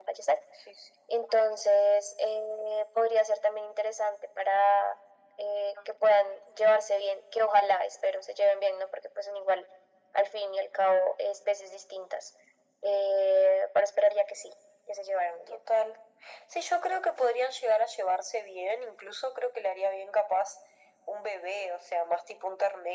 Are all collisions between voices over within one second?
Yes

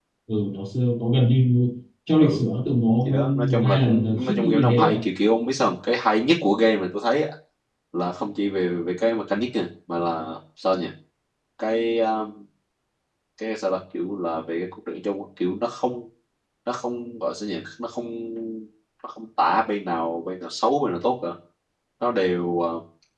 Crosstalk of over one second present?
Yes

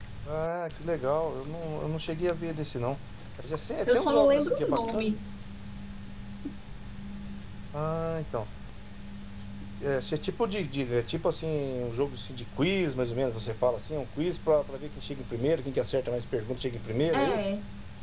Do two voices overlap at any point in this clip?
Yes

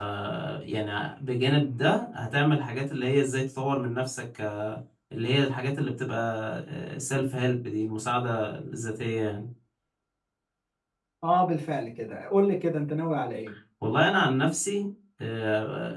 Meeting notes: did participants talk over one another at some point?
No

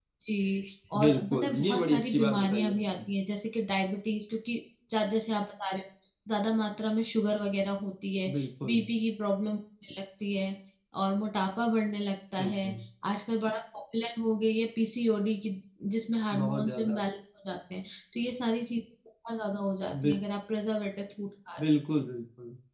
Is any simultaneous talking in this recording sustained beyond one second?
Yes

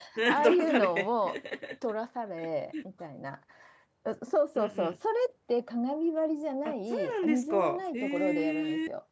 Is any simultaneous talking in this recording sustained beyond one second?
Yes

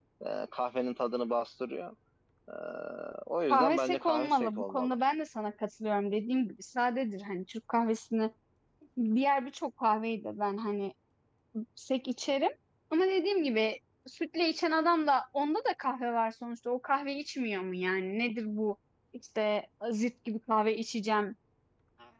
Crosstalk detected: Yes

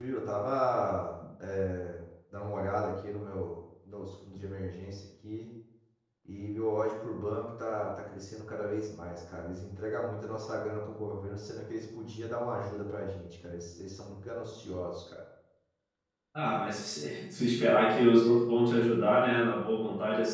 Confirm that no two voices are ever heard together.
Yes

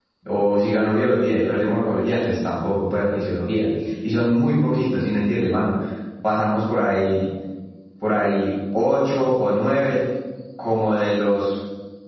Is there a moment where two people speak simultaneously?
No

